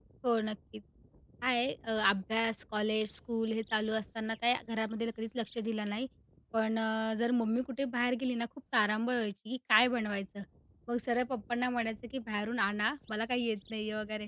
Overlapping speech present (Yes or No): No